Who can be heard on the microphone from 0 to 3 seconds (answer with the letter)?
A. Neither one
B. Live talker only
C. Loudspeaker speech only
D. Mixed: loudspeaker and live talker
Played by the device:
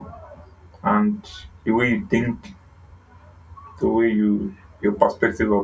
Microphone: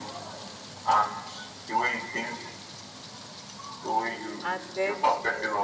C